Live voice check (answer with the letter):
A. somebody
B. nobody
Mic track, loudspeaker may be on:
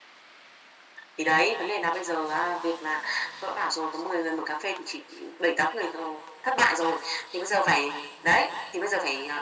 B